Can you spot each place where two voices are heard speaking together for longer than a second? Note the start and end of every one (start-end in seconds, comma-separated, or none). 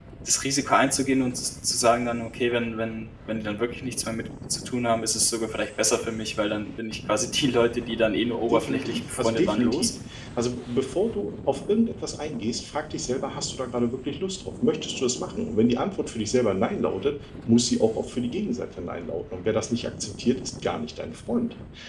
8.5-9.9